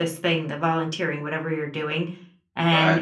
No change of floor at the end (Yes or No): Yes